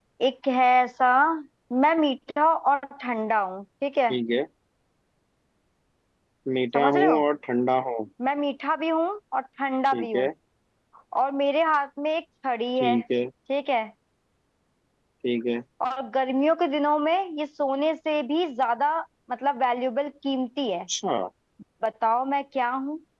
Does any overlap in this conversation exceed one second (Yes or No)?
No